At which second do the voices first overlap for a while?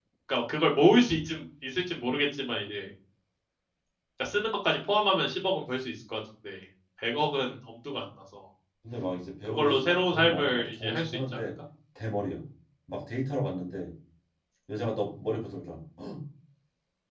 9.5 s

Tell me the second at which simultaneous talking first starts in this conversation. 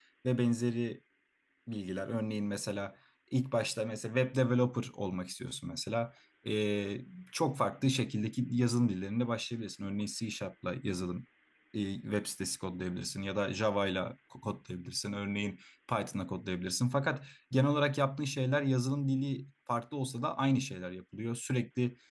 none

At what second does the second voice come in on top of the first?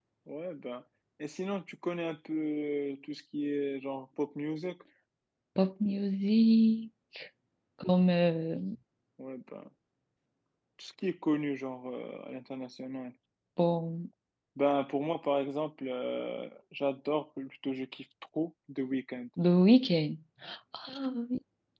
none

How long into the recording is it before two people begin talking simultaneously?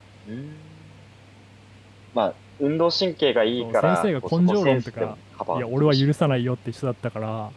3.6 s

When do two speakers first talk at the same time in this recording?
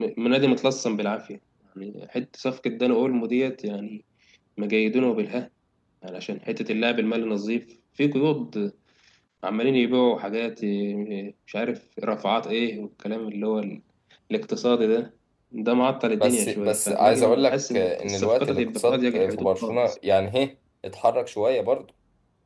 16.2 s

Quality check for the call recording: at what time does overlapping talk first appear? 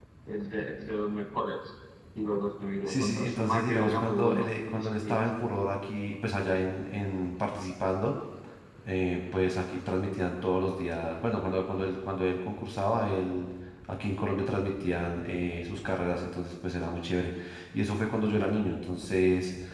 2.9 s

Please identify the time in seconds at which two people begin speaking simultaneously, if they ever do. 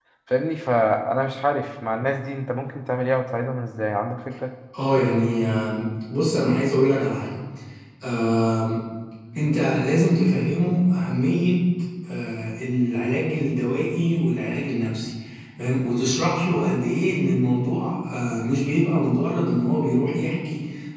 none

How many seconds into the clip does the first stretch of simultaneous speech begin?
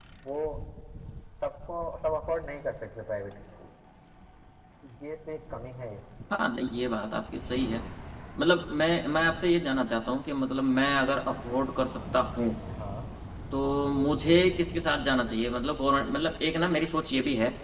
none

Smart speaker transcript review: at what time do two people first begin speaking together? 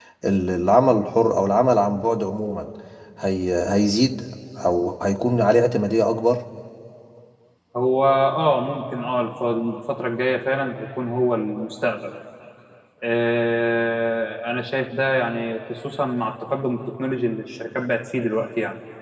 none

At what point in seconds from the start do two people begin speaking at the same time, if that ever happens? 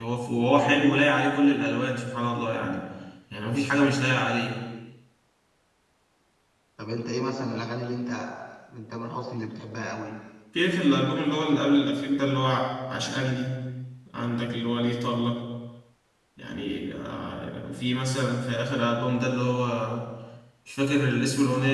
none

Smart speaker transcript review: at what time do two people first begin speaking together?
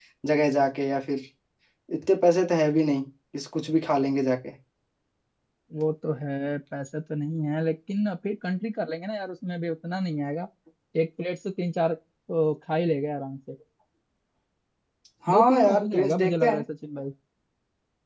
15.3 s

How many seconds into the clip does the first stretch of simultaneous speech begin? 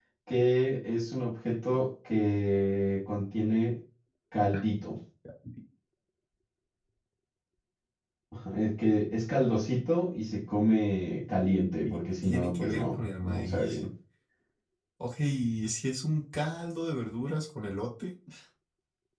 11.8 s

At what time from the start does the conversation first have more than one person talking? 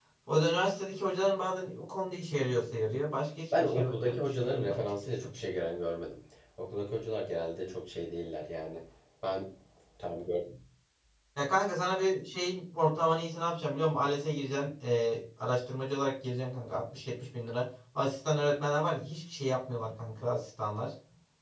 3.5 s

